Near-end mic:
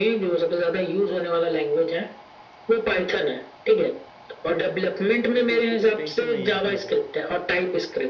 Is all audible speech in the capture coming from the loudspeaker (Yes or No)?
No